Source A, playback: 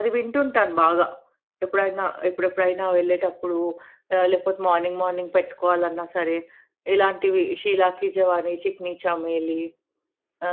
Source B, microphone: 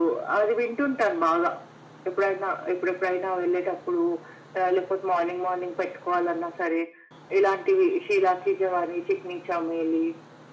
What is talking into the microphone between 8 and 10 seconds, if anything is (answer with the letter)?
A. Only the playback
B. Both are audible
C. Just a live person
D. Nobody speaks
A